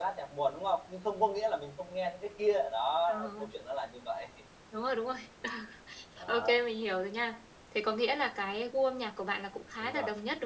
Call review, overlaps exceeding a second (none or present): none